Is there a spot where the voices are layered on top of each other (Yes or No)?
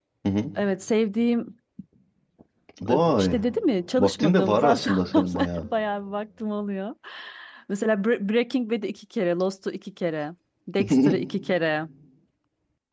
Yes